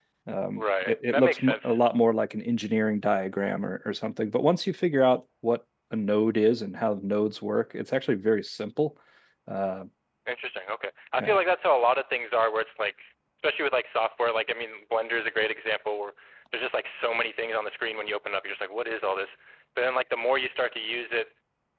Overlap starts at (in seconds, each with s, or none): 0.5 s